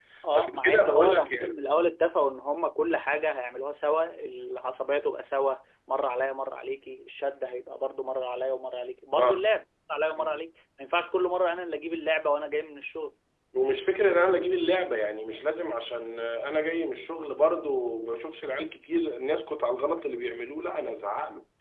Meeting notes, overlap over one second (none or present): present